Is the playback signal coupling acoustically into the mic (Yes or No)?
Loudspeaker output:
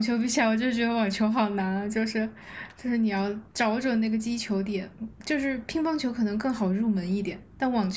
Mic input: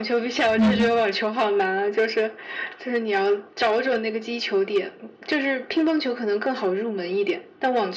Yes